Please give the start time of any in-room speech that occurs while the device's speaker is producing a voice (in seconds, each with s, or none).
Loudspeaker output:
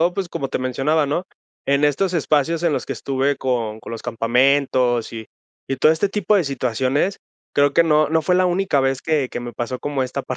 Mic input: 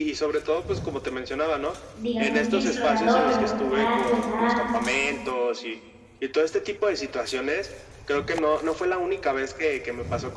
1.9 s